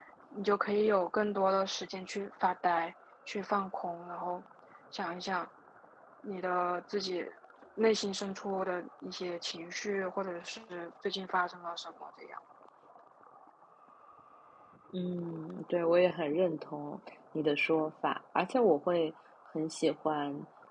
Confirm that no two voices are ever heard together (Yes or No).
Yes